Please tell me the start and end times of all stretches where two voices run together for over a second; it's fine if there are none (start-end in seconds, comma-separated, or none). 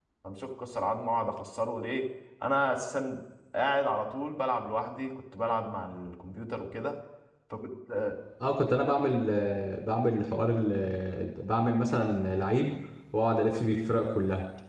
none